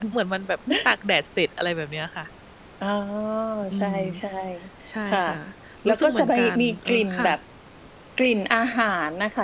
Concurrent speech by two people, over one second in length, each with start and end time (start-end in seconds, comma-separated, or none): 5.9-7.4